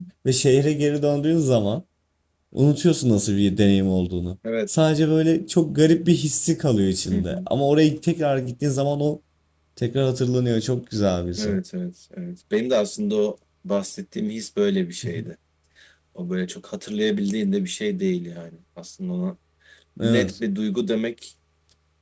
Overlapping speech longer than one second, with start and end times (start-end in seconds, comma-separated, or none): none